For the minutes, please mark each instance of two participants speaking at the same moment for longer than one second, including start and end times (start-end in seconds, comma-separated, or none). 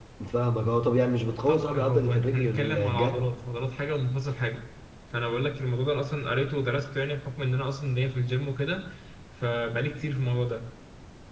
1.5-3.2